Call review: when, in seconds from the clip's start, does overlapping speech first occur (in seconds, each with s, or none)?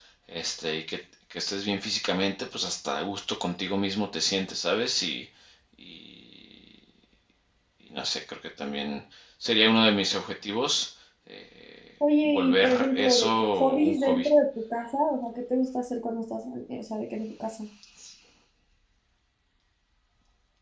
12.2 s